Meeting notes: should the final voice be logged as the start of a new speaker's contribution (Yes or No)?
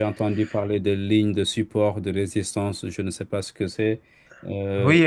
Yes